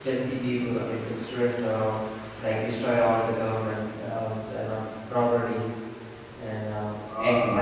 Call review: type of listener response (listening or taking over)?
taking over